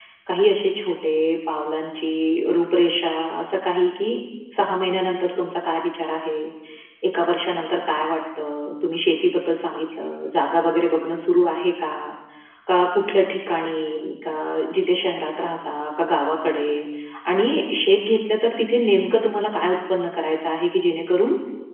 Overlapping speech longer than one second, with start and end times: none

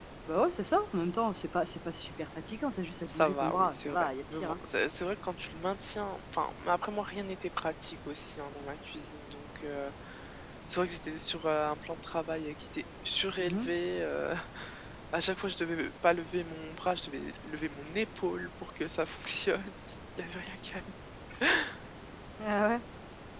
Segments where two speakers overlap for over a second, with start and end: 3.0-4.5

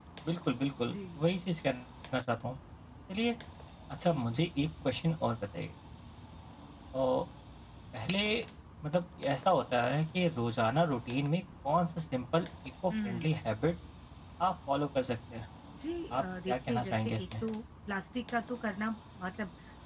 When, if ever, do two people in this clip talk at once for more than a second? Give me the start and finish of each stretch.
16.1-17.4

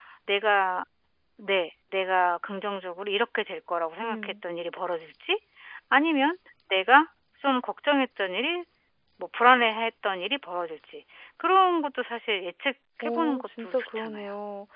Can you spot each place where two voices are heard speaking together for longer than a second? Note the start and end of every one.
13.0-14.2

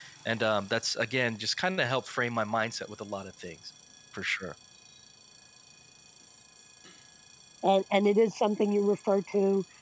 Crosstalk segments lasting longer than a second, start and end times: none

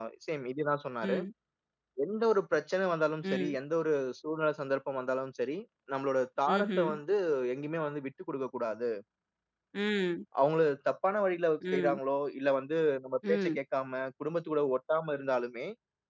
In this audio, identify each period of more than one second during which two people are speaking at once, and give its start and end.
none

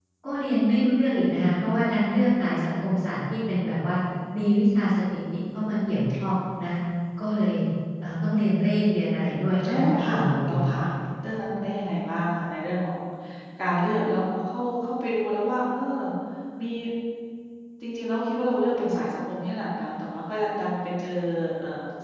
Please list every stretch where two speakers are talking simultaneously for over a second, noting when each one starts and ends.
9.2-10.7

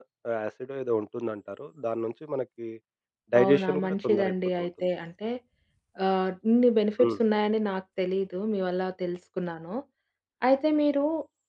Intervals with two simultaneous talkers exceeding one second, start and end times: 3.4-4.7

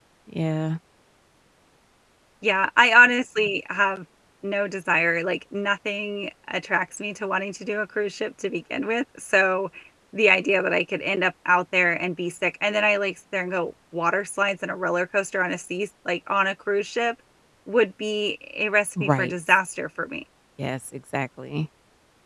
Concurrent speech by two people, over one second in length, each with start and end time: none

